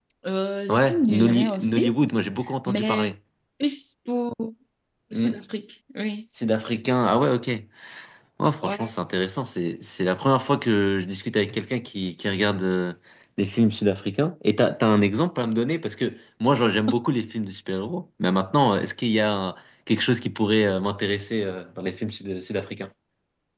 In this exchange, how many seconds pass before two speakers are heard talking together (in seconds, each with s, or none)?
0.7 s